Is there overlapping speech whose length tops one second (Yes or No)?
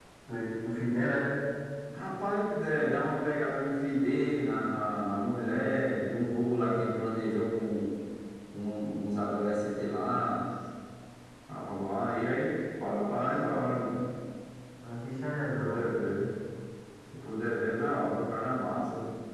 No